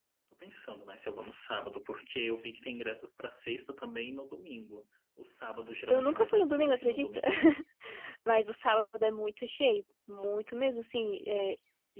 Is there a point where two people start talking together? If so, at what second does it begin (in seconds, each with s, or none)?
5.9 s